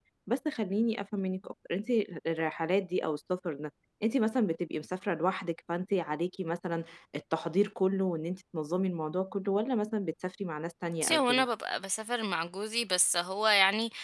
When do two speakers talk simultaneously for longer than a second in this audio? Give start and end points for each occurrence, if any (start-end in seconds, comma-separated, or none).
none